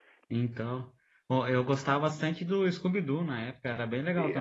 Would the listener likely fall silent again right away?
No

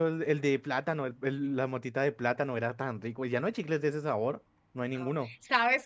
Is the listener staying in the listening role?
No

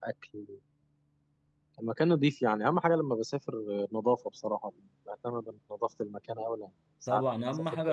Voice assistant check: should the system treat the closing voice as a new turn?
Yes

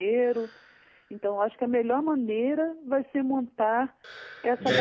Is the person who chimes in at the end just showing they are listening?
No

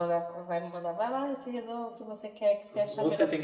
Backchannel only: No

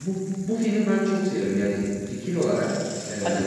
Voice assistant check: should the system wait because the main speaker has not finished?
Yes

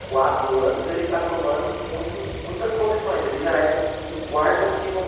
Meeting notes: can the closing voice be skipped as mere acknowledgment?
Yes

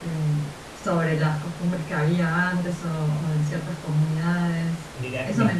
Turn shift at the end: Yes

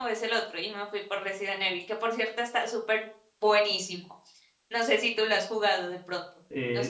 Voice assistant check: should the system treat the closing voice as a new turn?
Yes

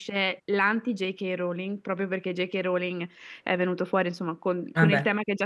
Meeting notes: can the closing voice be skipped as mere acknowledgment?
Yes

